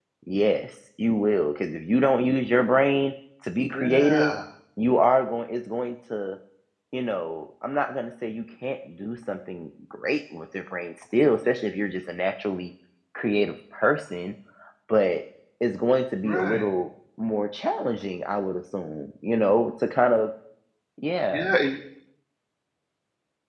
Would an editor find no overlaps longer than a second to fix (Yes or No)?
Yes